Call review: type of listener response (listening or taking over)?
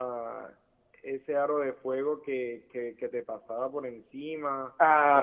listening